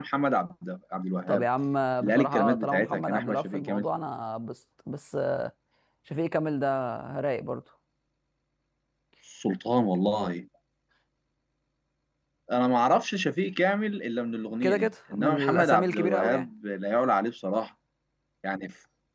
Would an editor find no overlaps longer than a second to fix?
No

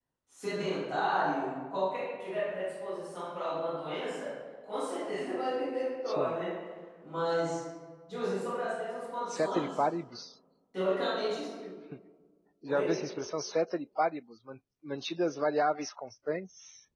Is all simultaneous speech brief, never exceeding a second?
Yes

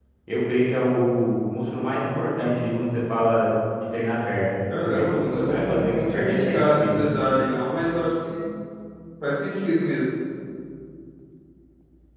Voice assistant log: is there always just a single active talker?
No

